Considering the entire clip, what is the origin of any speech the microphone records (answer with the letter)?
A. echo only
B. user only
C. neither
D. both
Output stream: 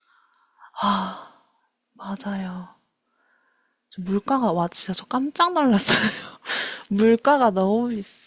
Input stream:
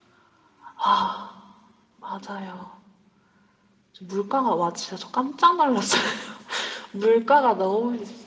A